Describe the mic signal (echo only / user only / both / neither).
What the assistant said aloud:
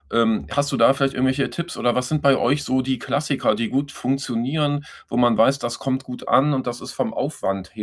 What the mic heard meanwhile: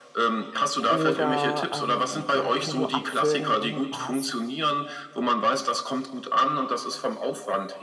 both